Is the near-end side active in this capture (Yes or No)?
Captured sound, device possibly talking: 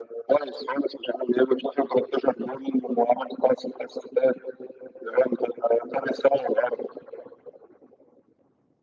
No